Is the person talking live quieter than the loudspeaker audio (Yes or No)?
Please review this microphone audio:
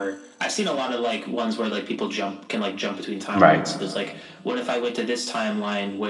No